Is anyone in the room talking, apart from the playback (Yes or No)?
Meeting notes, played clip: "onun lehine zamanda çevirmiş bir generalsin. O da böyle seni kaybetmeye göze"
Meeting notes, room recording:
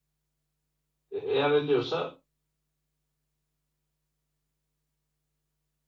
Yes